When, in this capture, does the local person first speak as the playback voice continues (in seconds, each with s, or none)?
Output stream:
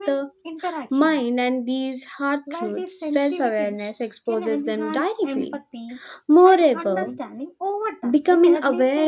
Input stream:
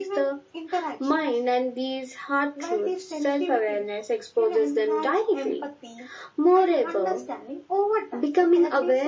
none